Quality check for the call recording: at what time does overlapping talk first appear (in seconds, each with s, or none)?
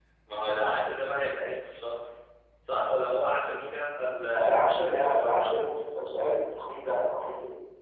4.3 s